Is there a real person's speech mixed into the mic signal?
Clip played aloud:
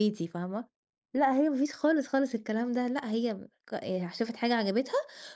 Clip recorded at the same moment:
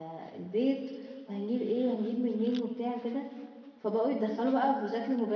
Yes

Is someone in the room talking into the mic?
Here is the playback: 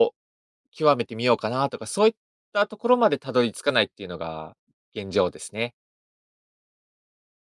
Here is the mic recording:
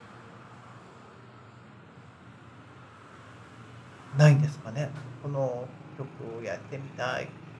Yes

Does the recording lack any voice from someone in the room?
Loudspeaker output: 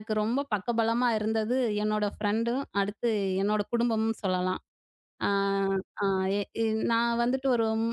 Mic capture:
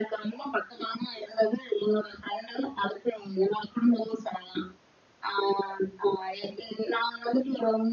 Yes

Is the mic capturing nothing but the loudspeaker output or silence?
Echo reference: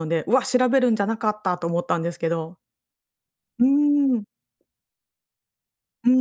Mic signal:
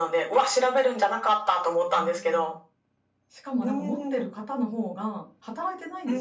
No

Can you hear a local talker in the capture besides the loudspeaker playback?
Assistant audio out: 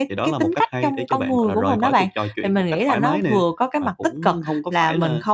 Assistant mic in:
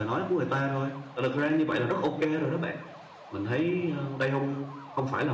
Yes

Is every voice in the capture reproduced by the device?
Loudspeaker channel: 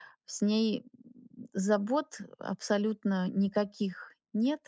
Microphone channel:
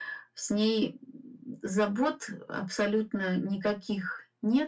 Yes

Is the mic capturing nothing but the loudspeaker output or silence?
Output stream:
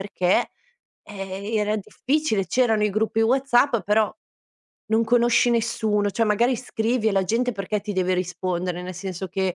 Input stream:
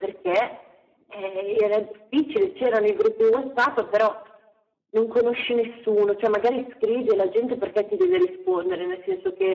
Yes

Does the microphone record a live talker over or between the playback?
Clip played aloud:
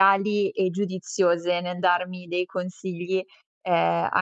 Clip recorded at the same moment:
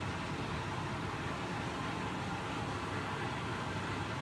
No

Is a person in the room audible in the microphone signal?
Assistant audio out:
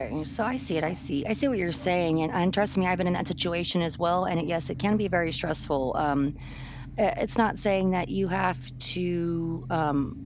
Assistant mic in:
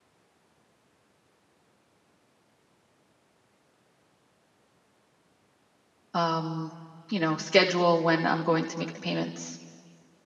Yes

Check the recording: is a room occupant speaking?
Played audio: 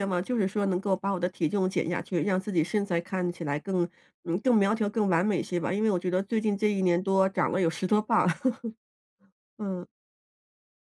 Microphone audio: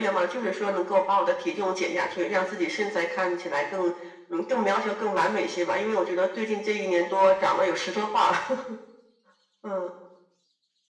No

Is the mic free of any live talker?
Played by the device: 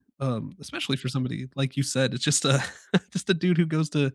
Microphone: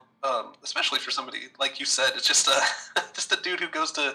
Yes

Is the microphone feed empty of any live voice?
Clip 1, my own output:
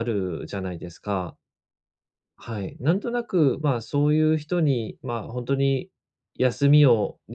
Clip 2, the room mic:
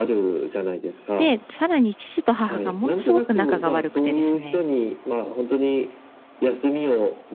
No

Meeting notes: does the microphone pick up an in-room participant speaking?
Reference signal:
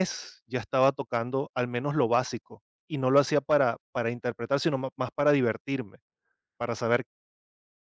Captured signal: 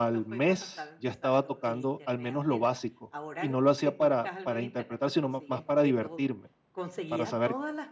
Yes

